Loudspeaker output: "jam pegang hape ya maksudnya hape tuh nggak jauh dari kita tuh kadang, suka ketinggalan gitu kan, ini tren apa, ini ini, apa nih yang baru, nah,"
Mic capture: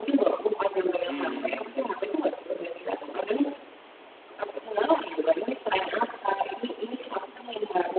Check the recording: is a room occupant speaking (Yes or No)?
Yes